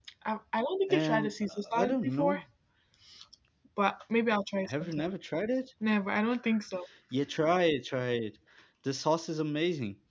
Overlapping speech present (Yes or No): Yes